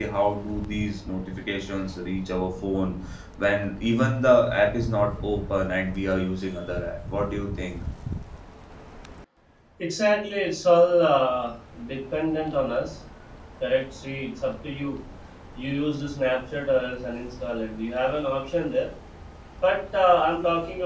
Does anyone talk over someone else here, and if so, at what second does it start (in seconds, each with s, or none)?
none